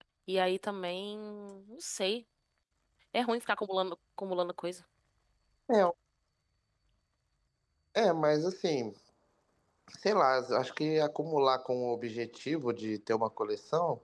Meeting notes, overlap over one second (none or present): none